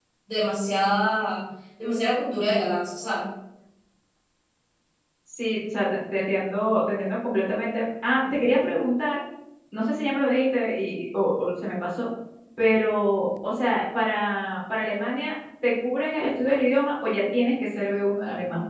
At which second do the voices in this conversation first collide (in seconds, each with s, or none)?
none